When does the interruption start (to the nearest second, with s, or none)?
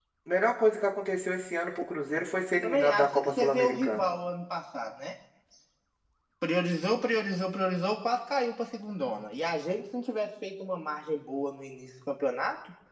3 s